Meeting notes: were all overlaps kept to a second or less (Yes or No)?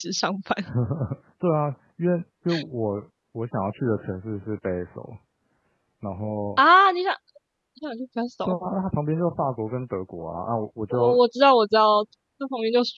Yes